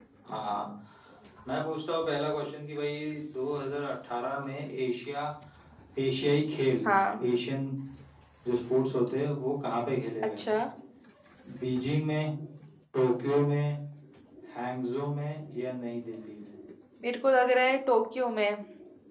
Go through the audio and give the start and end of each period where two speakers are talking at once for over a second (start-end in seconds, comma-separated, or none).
none